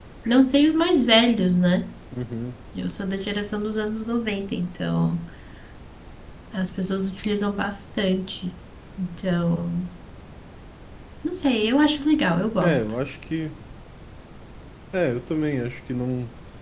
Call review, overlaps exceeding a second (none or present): none